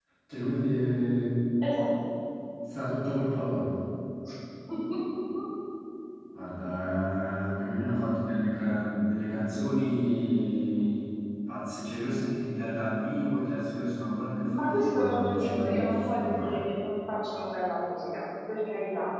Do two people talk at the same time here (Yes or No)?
Yes